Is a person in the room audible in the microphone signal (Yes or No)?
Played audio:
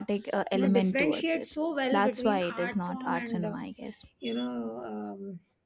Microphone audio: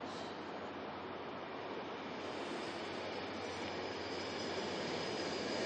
No